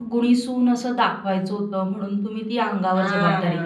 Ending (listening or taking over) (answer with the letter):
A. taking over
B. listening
A